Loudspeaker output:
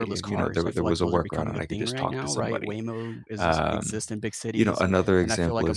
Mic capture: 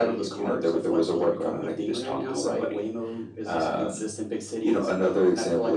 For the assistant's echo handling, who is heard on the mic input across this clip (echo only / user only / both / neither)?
echo only